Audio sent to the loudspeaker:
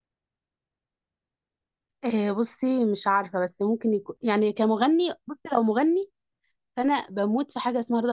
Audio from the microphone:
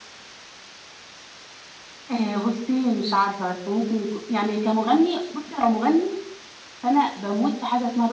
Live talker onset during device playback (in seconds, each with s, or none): none